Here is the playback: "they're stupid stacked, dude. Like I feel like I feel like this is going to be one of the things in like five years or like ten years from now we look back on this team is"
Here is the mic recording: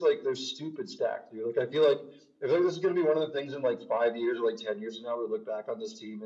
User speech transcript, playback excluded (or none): none